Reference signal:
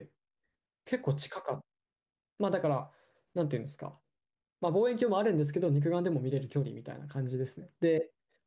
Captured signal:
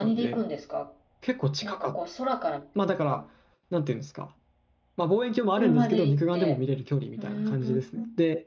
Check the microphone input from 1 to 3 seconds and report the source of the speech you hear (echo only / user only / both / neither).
both